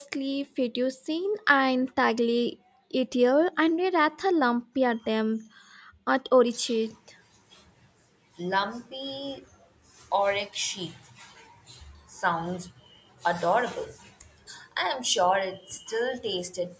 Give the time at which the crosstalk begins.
none

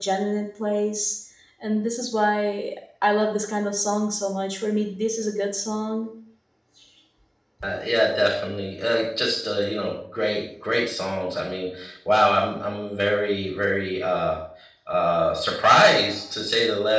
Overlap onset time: none

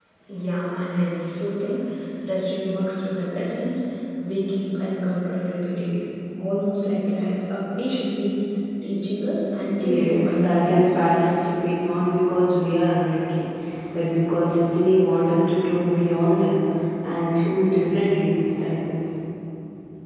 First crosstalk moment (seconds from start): 9.8 s

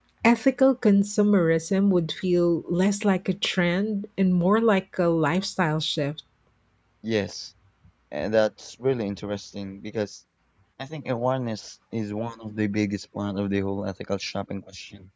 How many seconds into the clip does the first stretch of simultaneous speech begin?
none

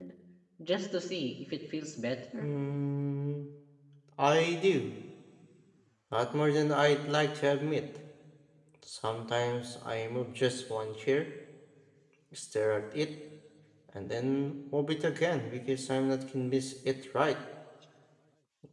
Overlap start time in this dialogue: none

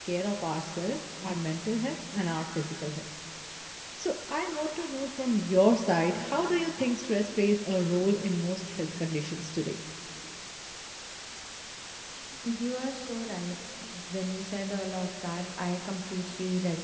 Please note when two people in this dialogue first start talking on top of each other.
none

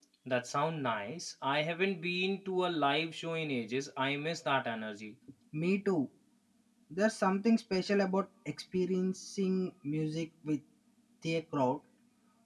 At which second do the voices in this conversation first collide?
none

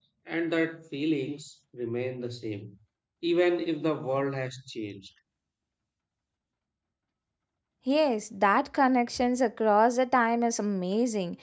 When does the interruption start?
none

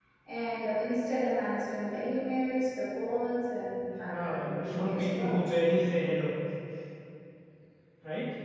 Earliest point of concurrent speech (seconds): 4.0 s

